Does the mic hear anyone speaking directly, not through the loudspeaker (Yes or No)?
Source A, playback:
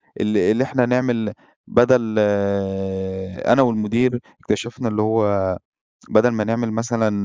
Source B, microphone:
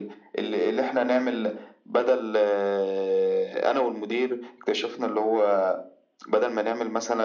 No